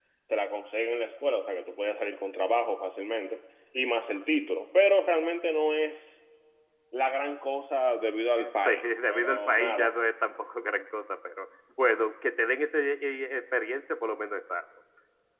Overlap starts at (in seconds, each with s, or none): 8.5 s